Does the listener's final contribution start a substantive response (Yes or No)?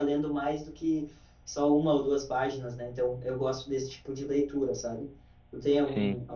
No